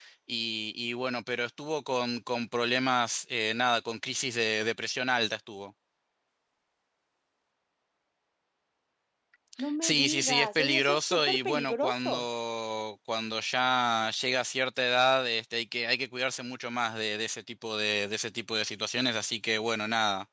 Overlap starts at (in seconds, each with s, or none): 9.8 s